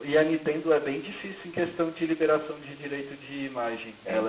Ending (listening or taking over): taking over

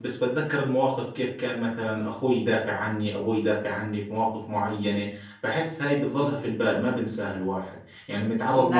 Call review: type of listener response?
listening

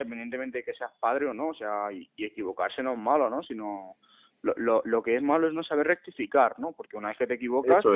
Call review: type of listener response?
listening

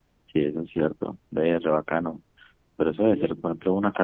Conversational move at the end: listening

